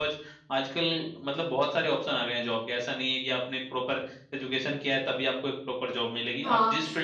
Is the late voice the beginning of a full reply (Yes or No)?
Yes